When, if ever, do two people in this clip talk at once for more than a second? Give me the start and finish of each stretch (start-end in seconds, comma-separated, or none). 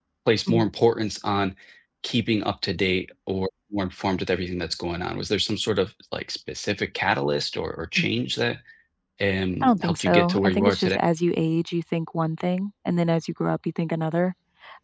9.6-11.0